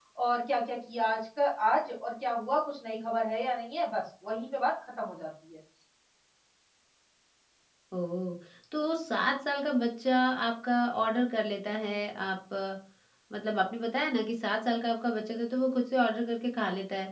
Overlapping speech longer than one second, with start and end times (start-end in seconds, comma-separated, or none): none